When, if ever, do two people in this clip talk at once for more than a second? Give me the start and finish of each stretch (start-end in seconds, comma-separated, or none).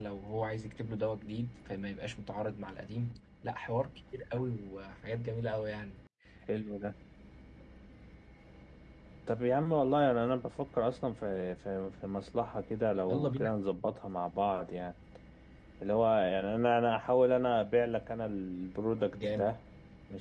none